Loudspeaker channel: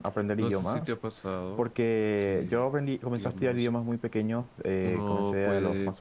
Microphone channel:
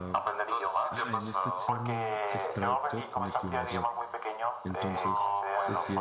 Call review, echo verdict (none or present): present